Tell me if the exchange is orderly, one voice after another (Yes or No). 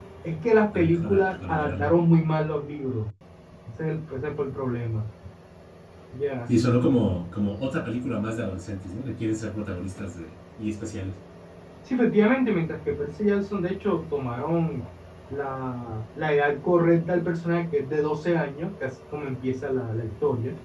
No